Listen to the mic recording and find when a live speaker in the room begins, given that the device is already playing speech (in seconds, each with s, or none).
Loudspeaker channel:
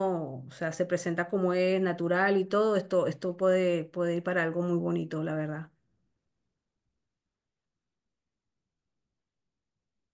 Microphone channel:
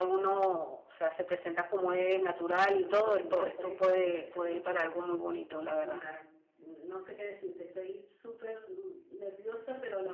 2.7 s